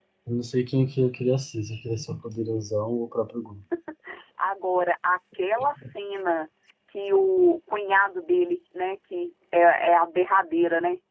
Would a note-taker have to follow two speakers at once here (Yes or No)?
No